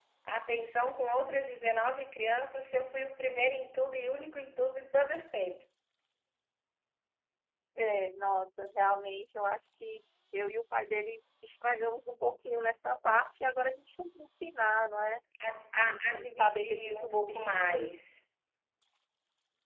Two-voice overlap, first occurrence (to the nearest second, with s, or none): 16 s